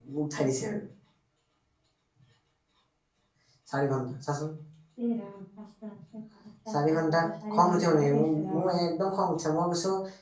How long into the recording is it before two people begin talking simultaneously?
7 s

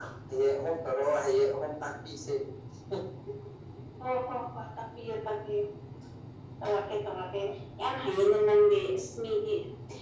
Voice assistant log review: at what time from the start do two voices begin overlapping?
none

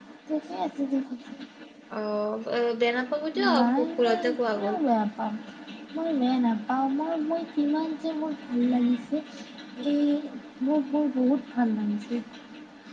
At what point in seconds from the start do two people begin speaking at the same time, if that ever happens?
4 s

